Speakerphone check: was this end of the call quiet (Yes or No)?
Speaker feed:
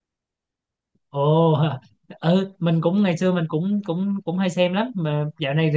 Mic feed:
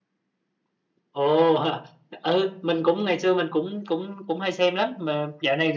Yes